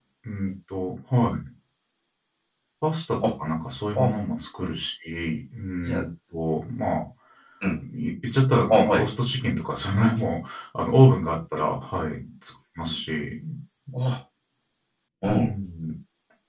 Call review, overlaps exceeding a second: none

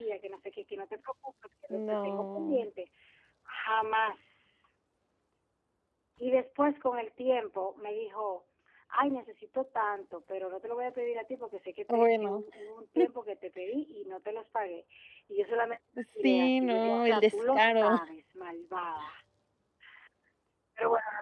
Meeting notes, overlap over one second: present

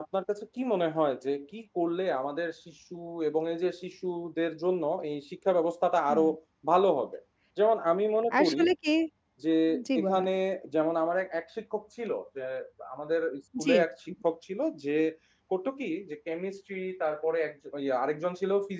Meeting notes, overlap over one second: none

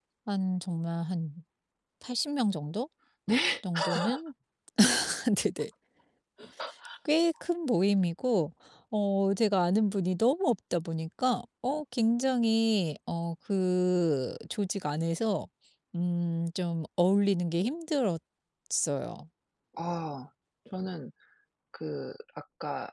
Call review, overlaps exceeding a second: none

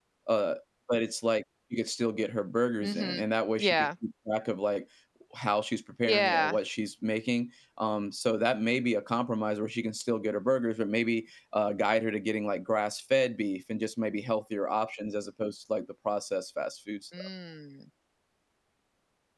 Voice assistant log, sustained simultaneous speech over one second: none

